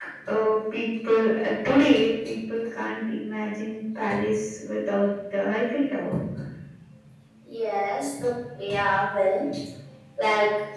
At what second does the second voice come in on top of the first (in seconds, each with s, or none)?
none